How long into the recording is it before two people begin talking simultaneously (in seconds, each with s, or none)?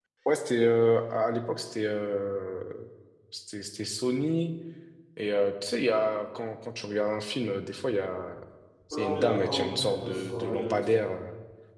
8.9 s